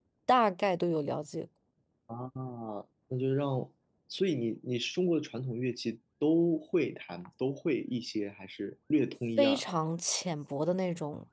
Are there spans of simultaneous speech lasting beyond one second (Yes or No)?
No